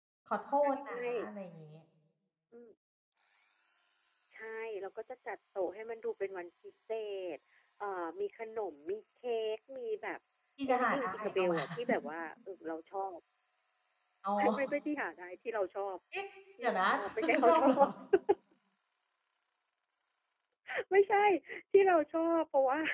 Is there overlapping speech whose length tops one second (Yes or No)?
Yes